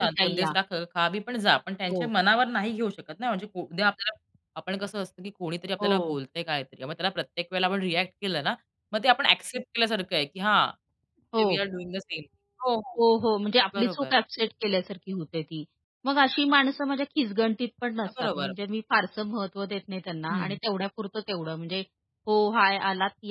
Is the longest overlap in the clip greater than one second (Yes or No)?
No